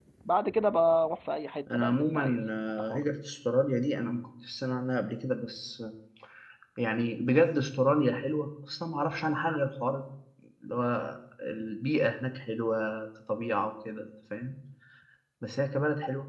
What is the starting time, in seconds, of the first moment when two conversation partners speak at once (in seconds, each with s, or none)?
1.7 s